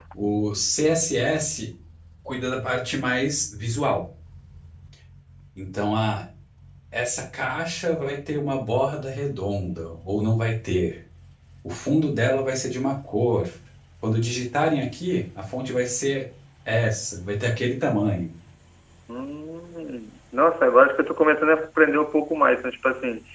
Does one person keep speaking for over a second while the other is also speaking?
No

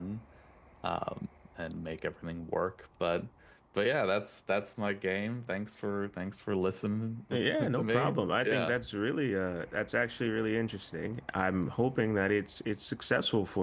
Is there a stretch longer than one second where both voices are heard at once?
Yes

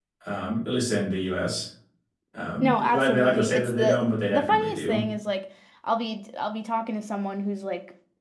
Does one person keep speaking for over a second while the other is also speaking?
Yes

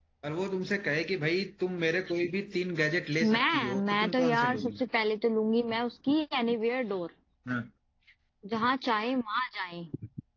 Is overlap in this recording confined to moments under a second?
No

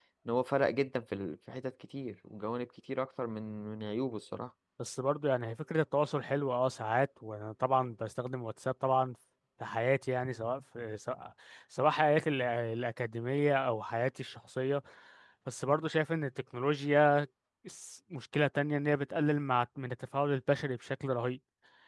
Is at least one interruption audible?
No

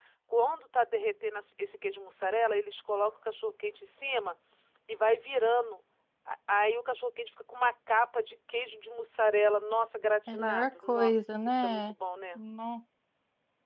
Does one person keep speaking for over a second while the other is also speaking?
Yes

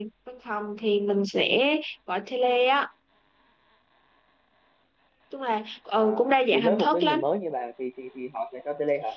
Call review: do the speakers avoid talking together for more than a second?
No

